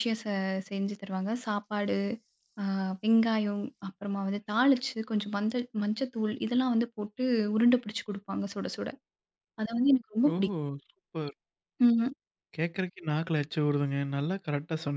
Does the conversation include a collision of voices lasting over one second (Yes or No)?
No